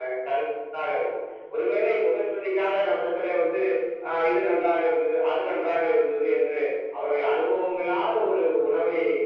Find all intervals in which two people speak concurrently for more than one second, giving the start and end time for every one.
none

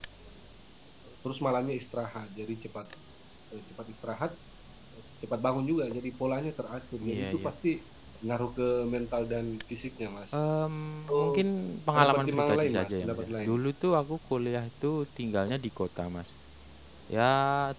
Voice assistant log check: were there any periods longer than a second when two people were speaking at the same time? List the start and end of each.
11.9-13.5

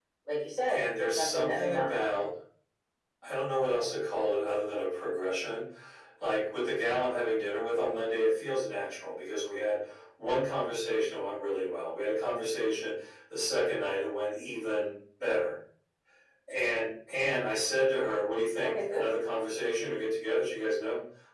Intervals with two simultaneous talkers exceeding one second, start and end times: 0.7-2.2

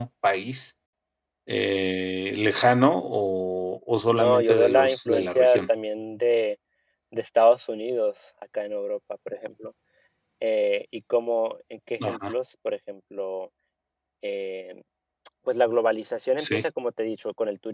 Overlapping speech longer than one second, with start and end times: 4.1-5.6

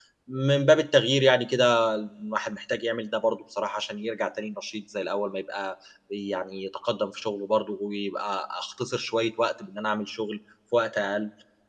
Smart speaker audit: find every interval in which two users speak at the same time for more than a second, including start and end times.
none

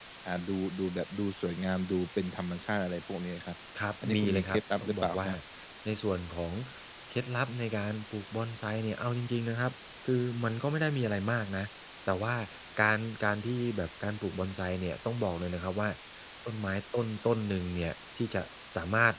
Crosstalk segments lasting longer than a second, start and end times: 4.0-5.3

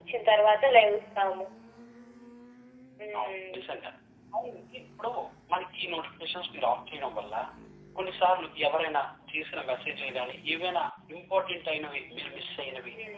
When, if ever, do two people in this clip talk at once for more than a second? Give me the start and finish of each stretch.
none

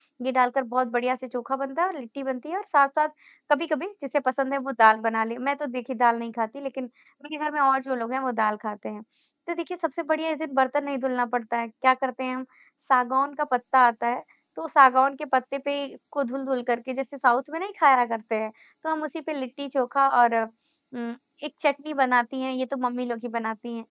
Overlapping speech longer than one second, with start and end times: none

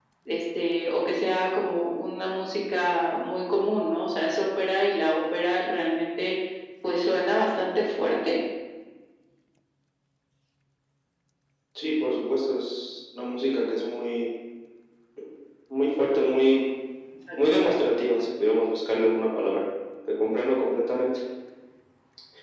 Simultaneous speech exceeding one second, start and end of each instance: none

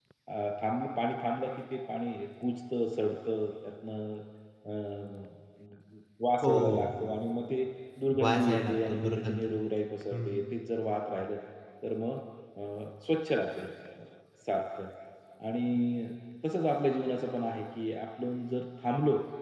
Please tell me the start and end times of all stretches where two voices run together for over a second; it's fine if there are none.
8.2-9.4

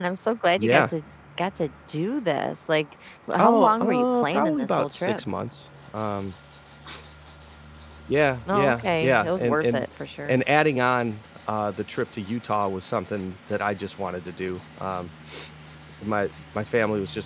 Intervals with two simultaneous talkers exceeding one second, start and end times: 3.4-5.2, 8.5-9.8

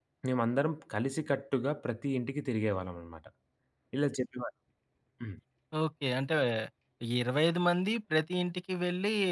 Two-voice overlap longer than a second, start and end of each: none

